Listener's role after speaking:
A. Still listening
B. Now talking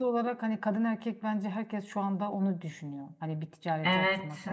B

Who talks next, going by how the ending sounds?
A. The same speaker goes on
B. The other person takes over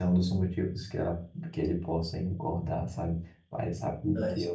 A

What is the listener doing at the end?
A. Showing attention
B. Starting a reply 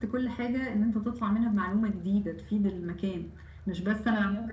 A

